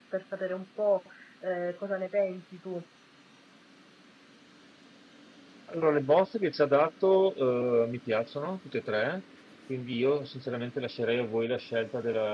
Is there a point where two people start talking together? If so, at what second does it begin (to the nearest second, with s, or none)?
none